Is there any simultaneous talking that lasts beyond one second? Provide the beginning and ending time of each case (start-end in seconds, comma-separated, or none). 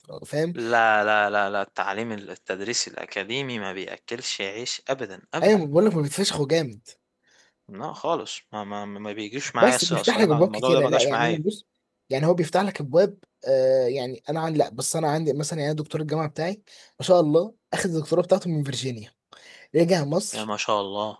9.6-11.4